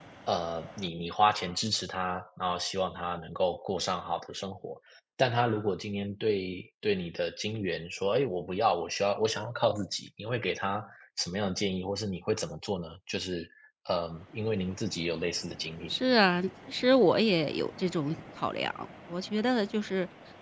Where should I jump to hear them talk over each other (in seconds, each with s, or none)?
none